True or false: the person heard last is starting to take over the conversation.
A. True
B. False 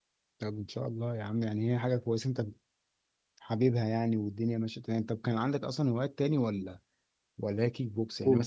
B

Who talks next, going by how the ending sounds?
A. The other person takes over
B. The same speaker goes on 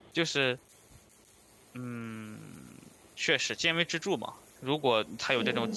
B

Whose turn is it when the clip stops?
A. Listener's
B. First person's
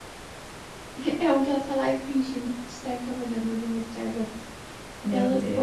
B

